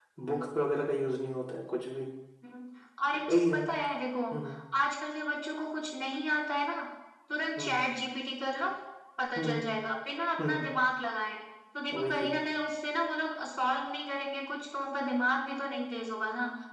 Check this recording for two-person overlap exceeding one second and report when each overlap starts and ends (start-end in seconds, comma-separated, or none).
none